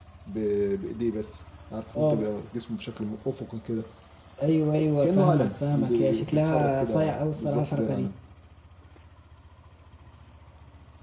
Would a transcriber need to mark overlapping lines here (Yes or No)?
Yes